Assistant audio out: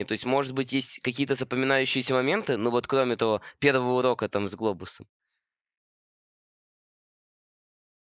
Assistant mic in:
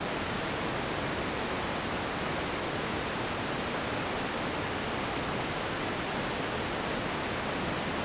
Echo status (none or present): none